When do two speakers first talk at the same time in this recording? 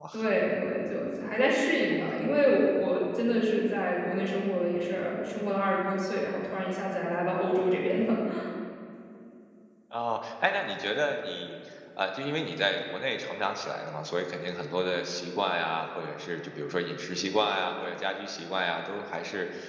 none

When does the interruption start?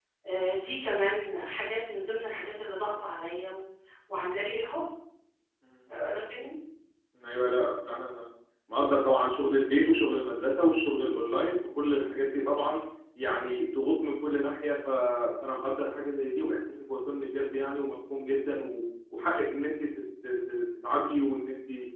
none

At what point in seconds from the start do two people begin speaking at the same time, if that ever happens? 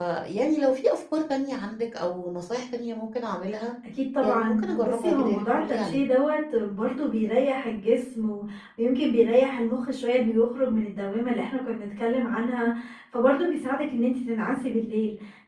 4 s

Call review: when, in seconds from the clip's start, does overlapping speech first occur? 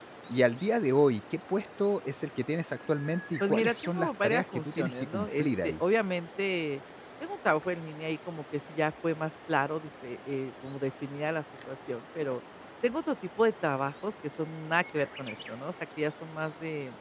3 s

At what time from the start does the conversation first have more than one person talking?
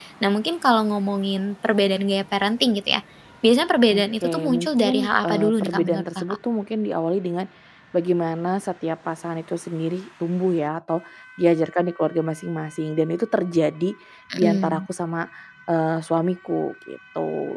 4 s

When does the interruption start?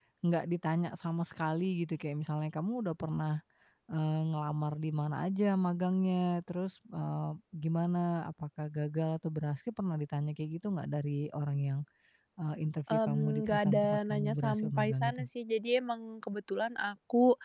13 s

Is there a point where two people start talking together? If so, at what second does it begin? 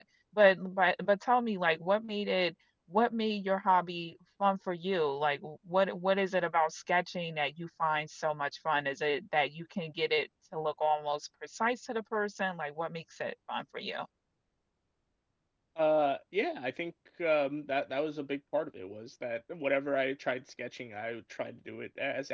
none

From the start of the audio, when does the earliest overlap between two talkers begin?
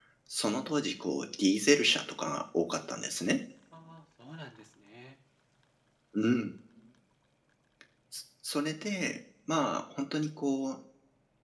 none

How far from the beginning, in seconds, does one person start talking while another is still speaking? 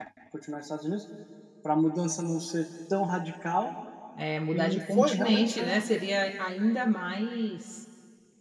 5 s

